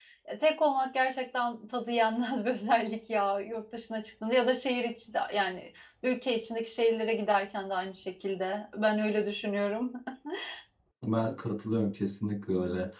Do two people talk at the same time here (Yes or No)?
No